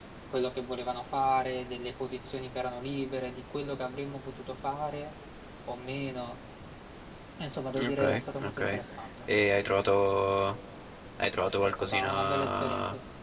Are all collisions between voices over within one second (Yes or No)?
No